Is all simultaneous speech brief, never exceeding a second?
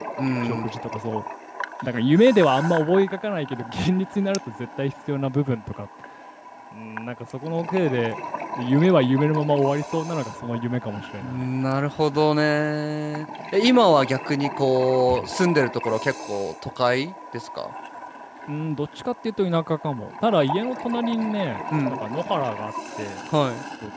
Yes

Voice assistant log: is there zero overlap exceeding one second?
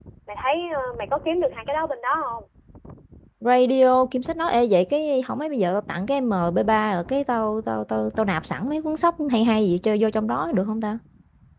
Yes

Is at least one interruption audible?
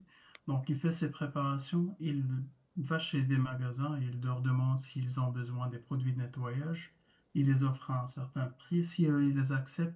No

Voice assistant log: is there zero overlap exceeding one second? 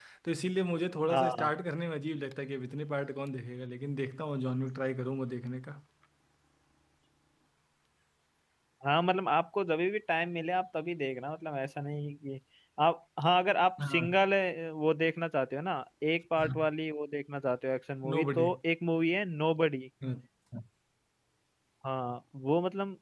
Yes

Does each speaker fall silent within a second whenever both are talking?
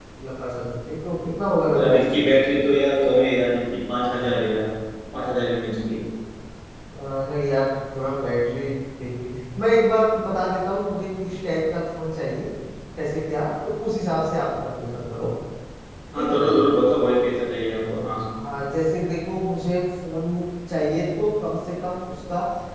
Yes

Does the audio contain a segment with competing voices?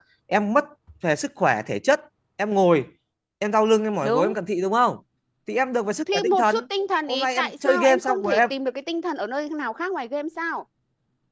Yes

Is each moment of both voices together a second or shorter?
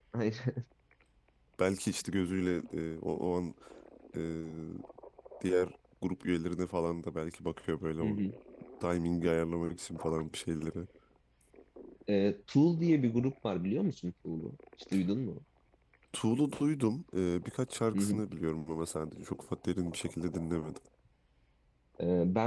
Yes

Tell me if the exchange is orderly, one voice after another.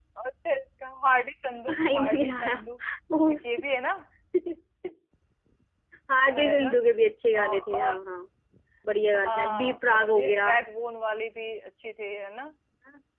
No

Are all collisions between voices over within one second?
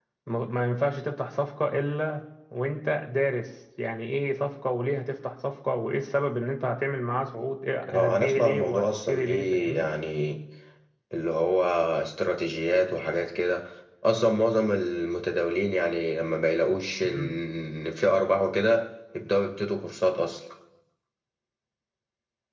No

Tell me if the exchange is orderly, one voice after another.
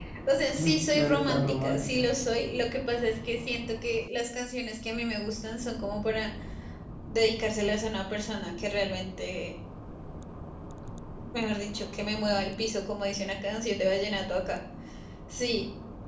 No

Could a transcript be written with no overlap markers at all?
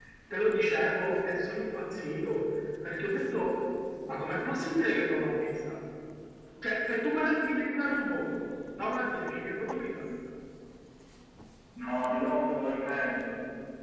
Yes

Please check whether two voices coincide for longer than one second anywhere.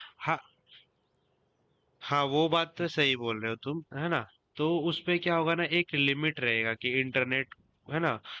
No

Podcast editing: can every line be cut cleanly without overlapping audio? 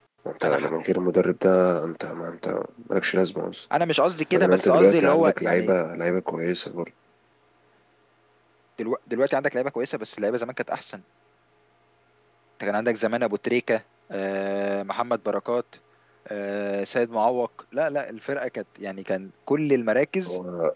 No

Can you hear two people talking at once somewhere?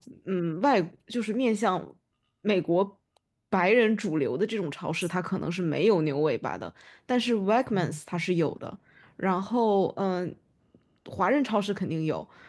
No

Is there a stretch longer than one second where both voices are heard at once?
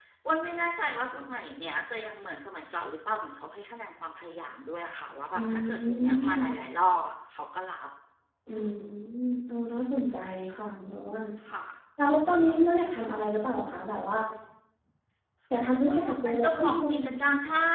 Yes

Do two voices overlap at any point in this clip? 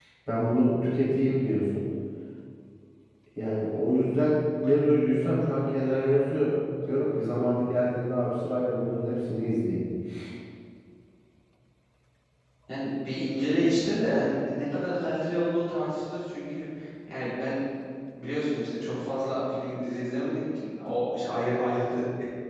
No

